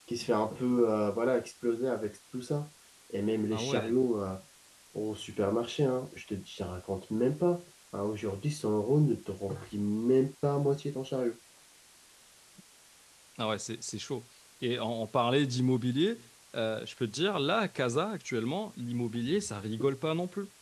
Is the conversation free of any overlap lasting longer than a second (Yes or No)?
Yes